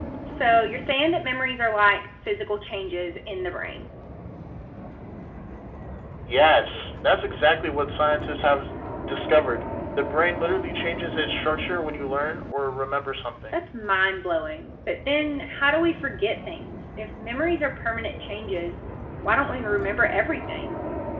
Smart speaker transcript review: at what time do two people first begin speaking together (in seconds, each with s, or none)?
none